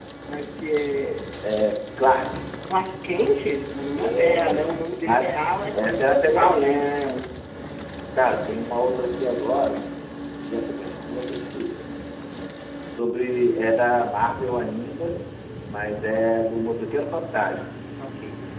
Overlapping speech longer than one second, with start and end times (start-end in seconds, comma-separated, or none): 4.0-5.2